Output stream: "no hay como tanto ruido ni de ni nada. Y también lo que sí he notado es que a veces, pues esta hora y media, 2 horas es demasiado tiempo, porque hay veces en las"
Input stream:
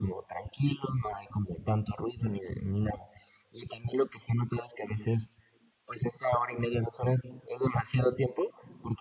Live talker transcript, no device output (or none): none